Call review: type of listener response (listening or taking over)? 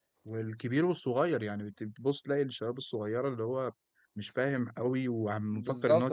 taking over